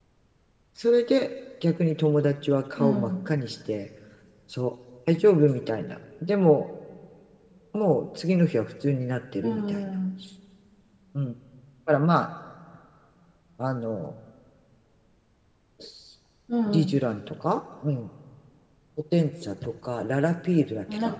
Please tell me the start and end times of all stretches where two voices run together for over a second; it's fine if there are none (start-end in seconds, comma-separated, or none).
none